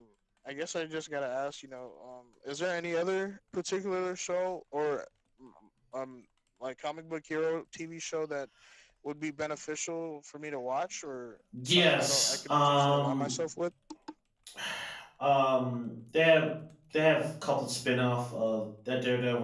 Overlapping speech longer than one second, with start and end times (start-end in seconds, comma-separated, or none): 11.7-13.3